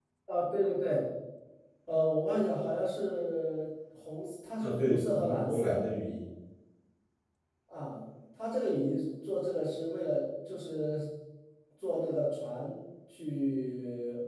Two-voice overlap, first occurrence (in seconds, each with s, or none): 4.6 s